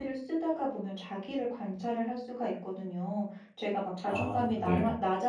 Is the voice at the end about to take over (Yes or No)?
No